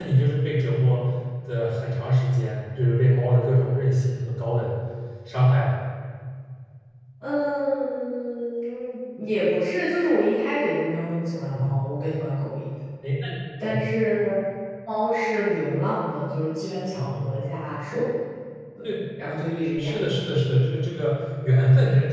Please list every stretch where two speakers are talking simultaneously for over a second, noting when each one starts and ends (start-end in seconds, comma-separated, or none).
none